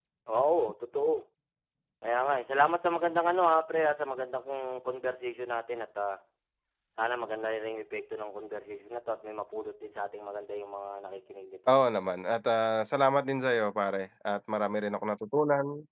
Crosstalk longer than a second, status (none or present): none